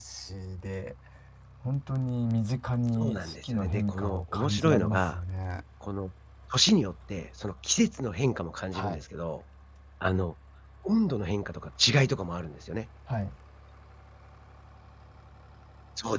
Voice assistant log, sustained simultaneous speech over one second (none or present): present